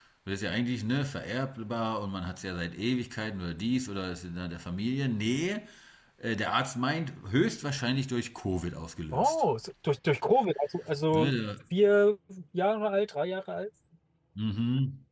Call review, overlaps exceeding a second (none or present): none